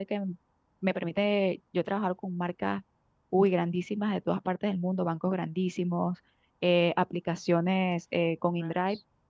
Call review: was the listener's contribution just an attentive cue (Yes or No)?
Yes